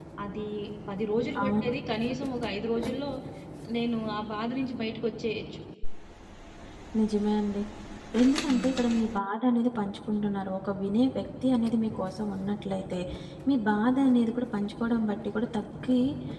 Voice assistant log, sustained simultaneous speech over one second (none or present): none